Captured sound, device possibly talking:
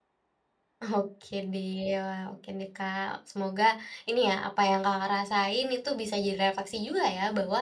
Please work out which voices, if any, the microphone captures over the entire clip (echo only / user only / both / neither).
user only